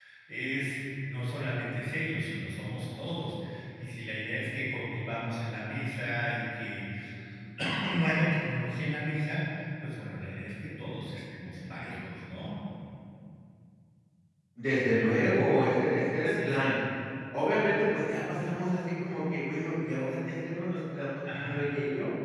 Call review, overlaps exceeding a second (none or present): none